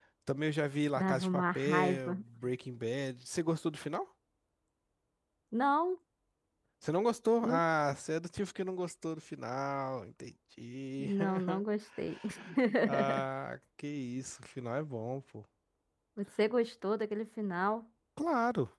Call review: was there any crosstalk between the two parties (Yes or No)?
Yes